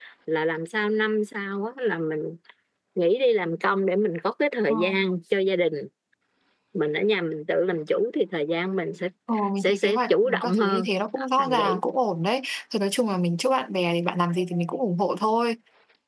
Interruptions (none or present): present